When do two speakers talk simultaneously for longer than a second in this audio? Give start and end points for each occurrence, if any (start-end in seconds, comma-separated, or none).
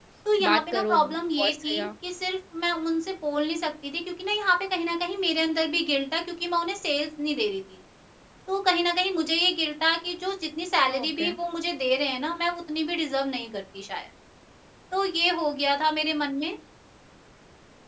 0.5-1.9